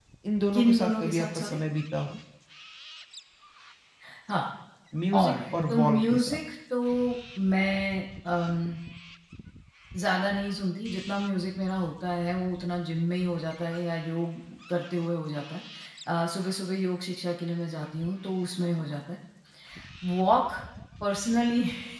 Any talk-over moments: Yes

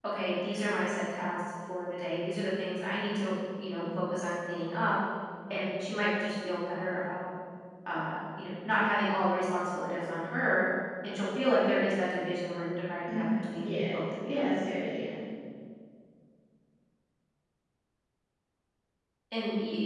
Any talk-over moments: Yes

